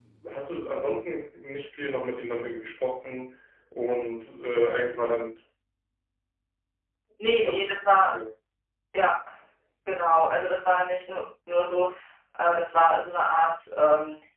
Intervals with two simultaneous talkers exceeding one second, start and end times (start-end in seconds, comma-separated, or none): none